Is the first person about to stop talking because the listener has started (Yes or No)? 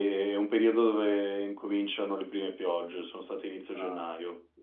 Yes